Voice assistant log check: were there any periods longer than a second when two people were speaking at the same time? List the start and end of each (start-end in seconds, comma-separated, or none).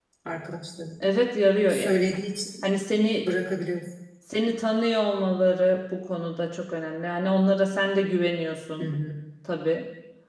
none